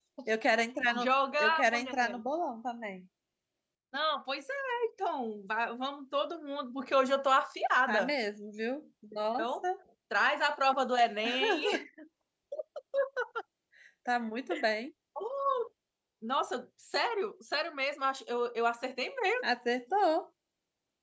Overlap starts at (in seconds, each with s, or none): 0.9 s